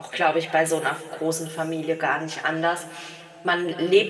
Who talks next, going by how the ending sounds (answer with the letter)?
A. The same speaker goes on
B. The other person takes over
A